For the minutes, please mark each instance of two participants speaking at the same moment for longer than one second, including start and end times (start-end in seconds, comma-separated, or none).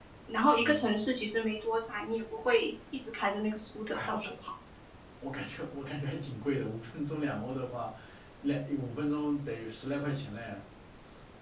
none